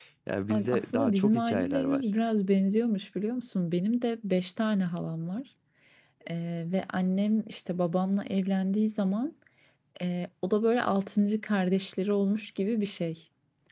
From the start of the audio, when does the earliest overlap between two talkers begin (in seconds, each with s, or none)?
0.5 s